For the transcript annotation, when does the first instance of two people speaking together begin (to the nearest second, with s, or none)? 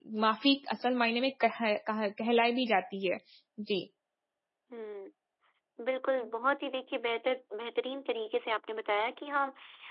none